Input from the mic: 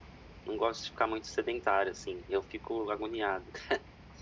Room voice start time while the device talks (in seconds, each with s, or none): none